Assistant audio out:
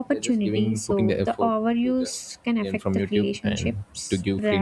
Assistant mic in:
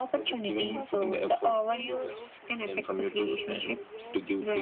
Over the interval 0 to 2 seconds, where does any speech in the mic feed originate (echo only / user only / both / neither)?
both